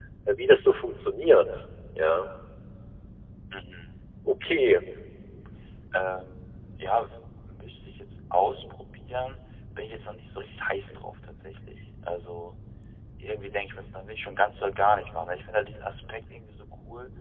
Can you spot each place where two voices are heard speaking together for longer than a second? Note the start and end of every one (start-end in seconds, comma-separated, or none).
none